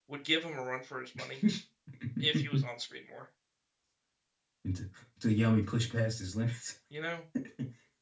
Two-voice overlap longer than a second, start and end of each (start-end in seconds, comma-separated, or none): none